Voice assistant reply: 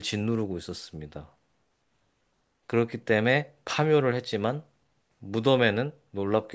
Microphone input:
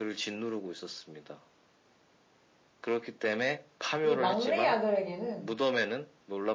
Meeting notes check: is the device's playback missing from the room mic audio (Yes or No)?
No